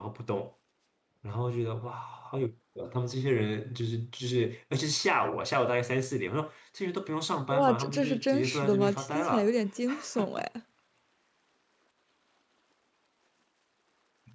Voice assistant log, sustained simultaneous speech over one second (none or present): present